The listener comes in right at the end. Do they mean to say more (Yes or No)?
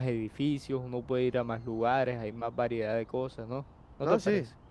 Yes